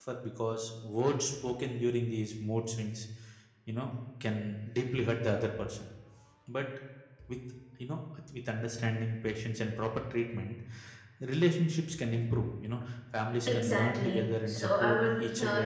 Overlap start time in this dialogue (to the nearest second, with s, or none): 13 s